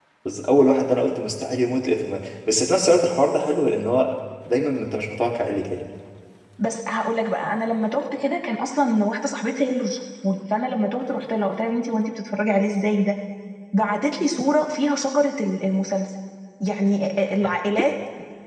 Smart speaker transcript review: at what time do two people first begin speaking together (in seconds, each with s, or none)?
none